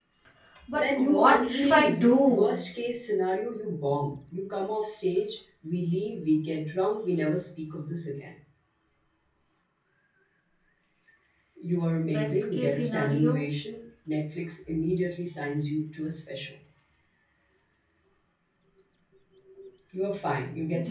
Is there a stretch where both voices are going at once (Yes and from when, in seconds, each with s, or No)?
Yes, from 0.7 s